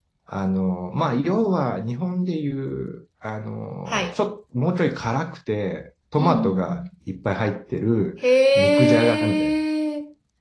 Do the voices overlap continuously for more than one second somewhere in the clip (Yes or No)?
Yes